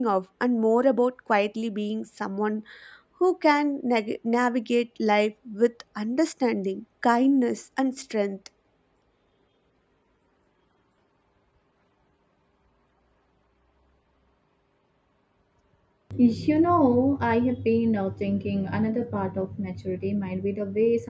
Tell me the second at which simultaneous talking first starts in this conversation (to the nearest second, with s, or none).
none